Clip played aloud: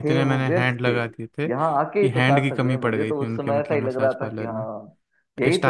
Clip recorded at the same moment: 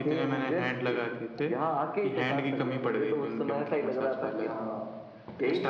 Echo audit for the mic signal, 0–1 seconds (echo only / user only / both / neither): echo only